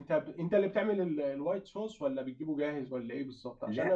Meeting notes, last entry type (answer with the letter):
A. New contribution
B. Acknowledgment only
B